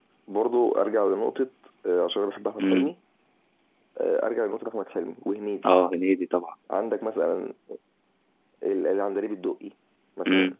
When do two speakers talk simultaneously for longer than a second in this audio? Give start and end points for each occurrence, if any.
none

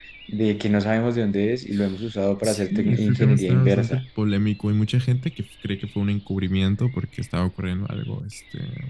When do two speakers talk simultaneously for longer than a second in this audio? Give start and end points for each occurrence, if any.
2.4-4.0

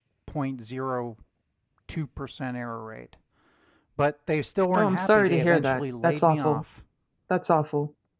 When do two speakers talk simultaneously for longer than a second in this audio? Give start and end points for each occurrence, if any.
4.8-6.6

